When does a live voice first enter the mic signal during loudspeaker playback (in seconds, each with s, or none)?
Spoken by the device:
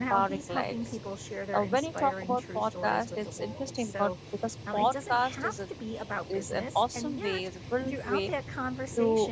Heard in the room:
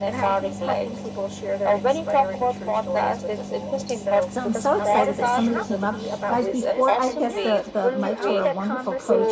4.3 s